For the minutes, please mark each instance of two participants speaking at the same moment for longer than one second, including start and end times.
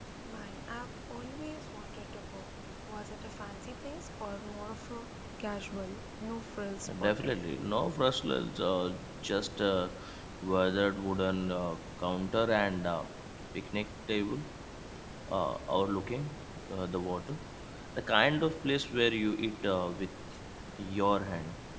none

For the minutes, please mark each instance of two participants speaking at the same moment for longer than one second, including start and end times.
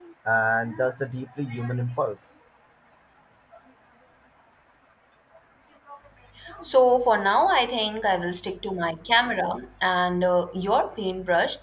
none

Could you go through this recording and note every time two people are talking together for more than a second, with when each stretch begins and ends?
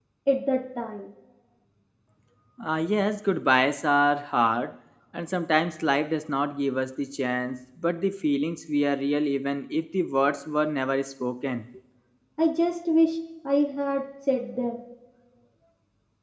none

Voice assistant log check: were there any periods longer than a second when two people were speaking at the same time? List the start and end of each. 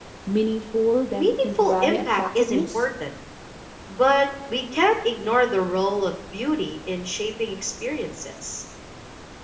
1.1-2.8

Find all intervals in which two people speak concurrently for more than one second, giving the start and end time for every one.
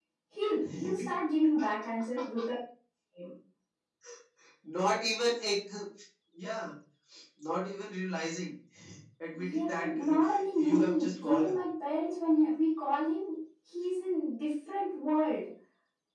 9.3-11.5

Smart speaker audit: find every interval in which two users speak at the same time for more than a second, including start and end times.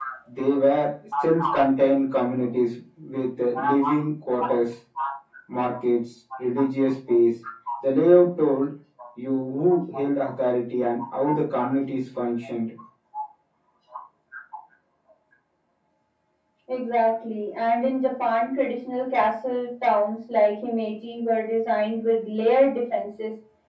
none

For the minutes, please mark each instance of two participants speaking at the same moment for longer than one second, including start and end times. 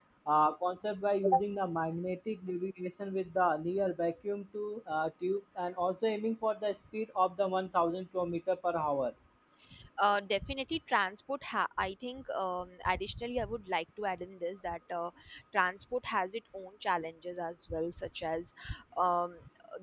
none

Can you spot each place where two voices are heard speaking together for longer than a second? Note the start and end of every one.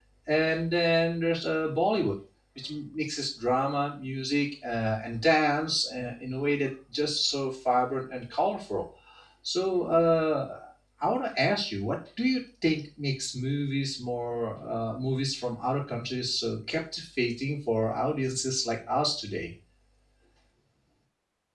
none

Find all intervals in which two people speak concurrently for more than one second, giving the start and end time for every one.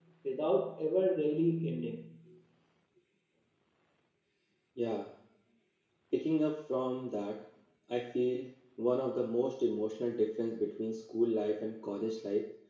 none

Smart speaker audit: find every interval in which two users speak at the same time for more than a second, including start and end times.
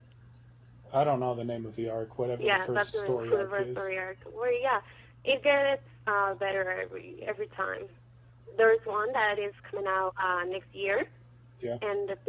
2.4-3.9

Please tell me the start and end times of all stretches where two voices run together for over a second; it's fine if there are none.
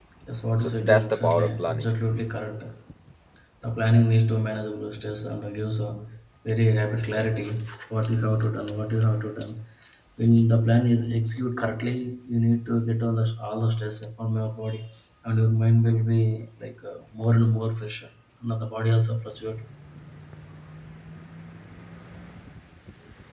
0.6-1.8

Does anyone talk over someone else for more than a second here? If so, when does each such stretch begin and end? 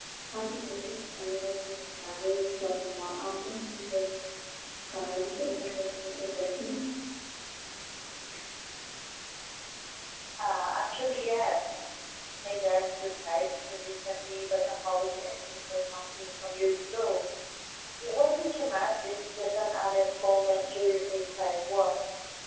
none

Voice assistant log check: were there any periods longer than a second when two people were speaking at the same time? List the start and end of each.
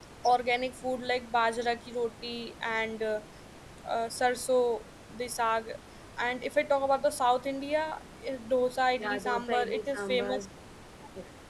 9.0-10.4

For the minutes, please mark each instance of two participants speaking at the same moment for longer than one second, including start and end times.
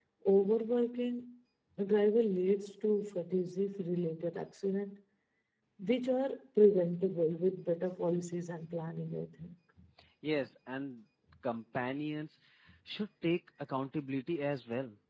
none

